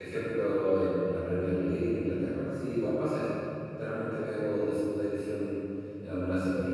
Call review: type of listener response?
listening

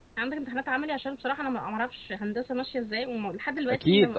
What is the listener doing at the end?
taking over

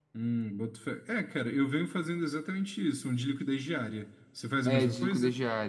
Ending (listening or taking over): taking over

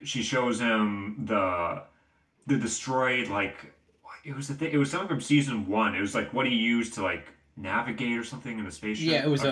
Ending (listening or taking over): taking over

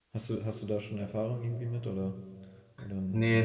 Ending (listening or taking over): taking over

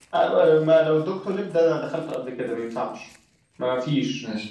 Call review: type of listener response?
listening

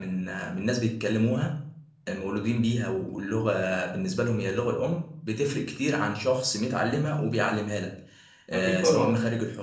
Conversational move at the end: listening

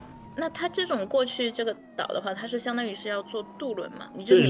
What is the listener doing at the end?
taking over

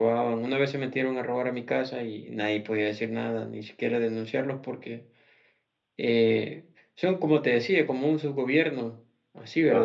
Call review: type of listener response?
listening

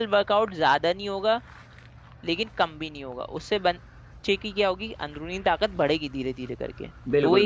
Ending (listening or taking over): taking over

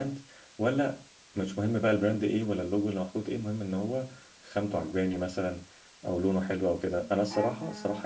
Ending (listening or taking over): listening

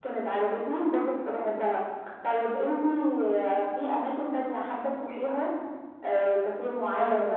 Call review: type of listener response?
listening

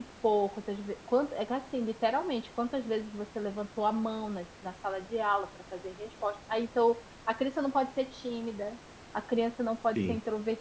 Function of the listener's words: listening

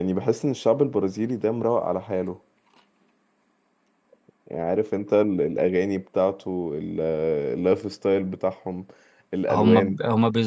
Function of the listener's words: taking over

